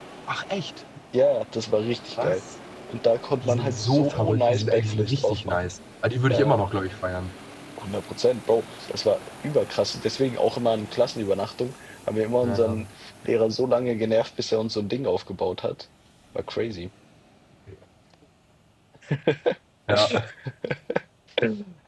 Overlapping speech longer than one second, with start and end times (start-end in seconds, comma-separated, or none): 3.4-5.7